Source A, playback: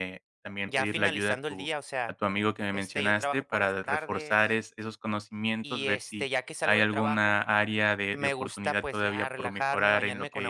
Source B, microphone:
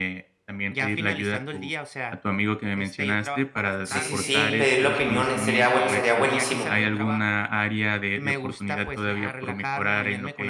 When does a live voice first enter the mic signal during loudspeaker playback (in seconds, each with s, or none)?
3.8 s